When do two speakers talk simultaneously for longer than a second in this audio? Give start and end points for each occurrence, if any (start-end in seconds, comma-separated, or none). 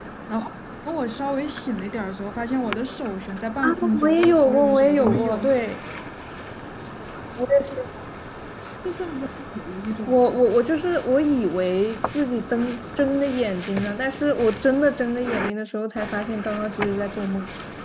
3.6-5.4